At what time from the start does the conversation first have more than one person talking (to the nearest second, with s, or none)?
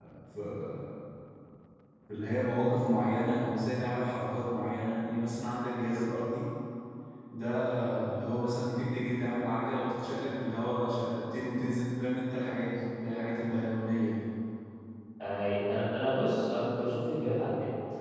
none